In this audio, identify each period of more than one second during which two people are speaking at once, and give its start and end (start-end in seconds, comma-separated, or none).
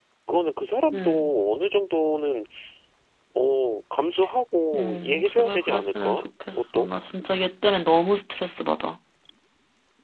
4.8-6.9